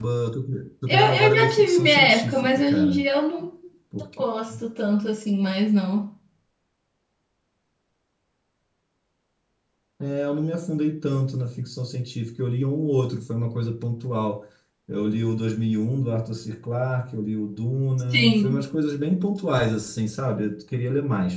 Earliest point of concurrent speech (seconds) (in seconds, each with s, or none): 0.9 s